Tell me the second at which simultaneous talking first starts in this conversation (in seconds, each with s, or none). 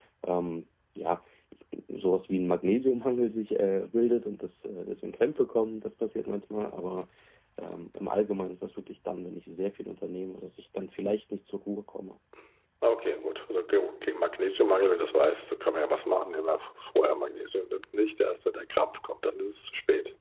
none